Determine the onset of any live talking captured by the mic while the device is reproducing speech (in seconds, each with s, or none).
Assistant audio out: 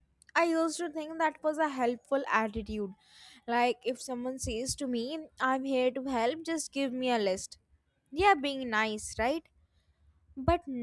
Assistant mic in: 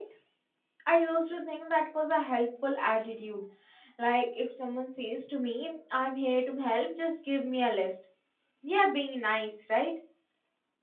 none